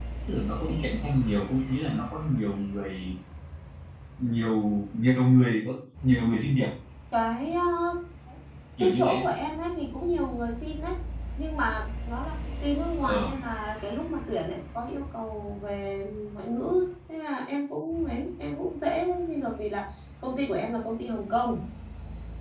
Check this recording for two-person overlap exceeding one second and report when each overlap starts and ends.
none

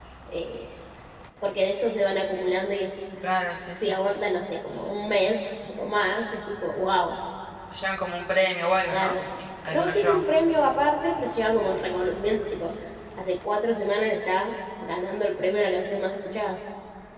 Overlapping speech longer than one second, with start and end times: none

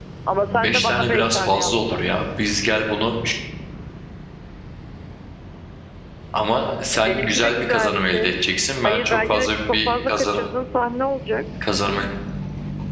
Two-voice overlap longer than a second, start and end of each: 0.6-2.2, 7.0-8.3, 8.8-10.4

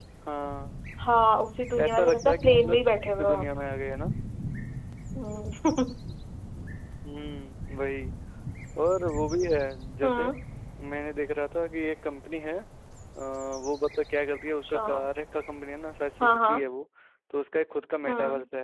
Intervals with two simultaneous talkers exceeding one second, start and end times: 1.8-3.4

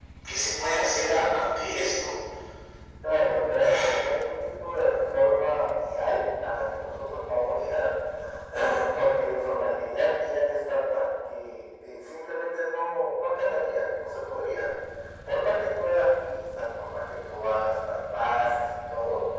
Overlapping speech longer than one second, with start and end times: none

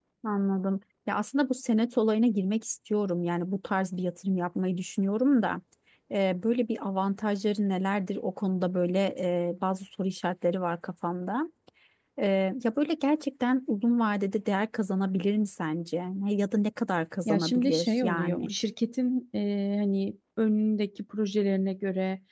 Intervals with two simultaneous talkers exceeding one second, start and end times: 17.2-18.5

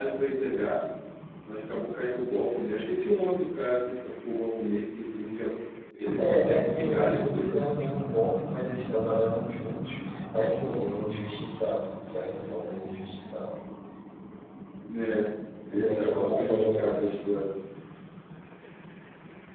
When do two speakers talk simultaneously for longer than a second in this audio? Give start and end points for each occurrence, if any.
6.2-7.6, 15.7-17.1

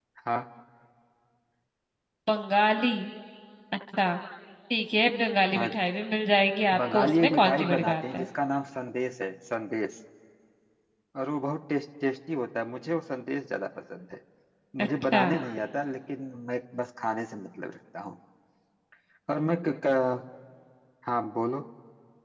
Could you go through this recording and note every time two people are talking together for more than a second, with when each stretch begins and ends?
6.8-8.3

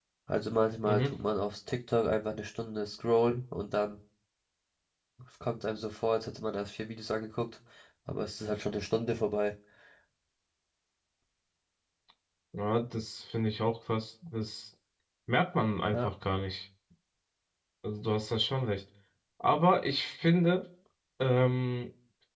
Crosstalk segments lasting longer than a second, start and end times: none

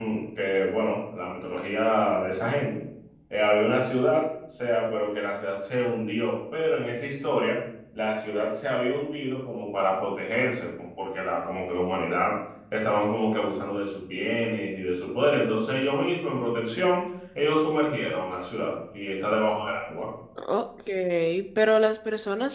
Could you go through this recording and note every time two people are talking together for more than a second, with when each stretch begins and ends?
none

